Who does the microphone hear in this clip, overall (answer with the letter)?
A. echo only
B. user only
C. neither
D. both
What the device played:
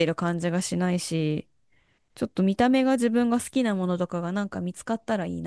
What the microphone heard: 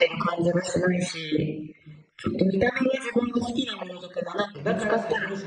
D